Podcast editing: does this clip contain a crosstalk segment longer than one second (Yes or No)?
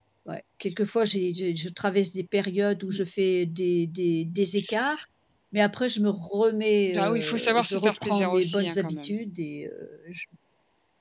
Yes